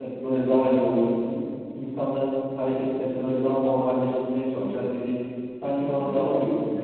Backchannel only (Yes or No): No